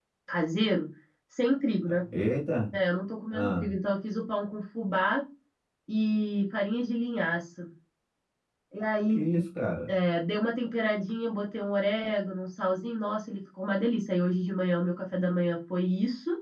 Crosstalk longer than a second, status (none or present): none